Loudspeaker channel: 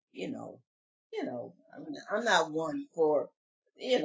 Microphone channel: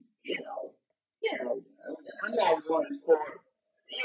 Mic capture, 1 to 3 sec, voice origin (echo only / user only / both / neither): echo only